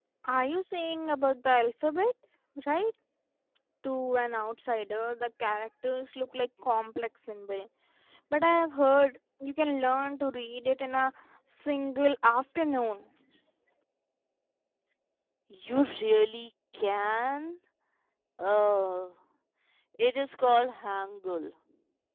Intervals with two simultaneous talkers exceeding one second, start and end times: none

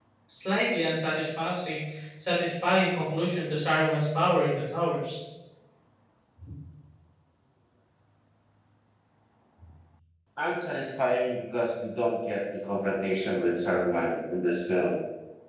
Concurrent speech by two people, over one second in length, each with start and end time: none

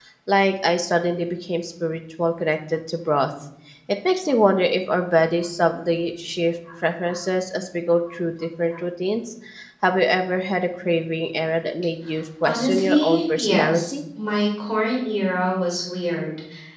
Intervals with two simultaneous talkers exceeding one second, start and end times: 12.4-13.9

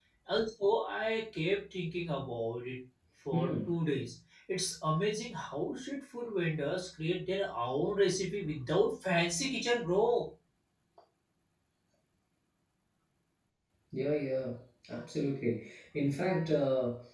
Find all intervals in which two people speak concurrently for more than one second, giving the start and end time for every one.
none

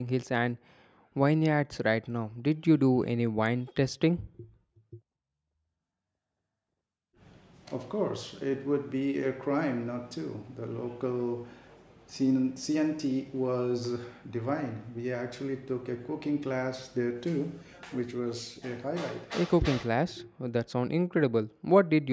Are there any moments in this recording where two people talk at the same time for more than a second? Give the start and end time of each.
none

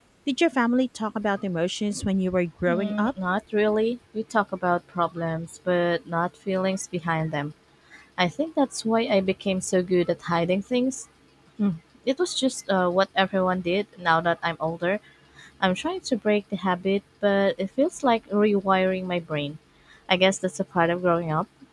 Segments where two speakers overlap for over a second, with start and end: none

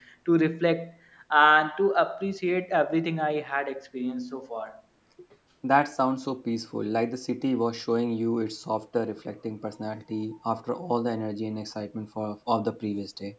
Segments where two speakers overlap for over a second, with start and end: none

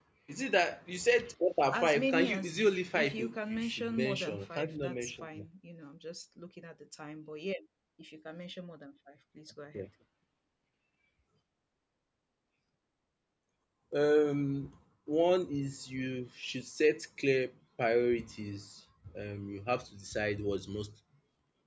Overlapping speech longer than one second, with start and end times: 1.7-5.5

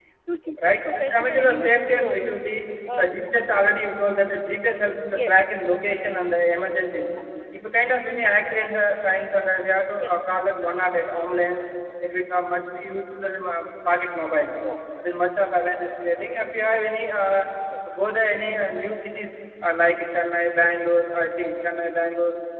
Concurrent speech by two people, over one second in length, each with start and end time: 0.7-2.4

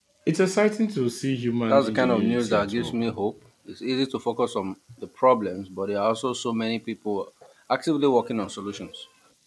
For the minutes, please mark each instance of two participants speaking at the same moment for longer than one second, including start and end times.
1.7-2.9

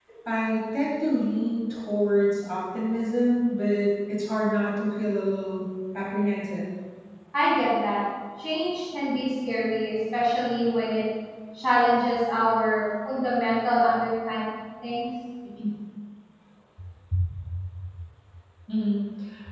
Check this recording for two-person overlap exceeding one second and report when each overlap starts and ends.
none

